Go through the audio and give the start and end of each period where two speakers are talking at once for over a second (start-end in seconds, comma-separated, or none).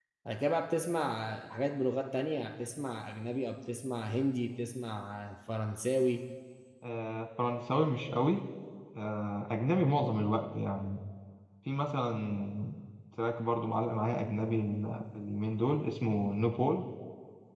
none